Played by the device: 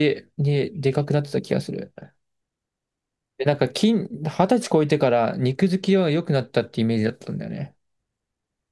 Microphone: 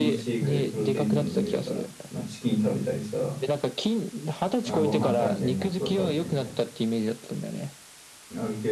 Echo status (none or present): present